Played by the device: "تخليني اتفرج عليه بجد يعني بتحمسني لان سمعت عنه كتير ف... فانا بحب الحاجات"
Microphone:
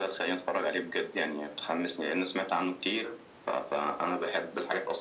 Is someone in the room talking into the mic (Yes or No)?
No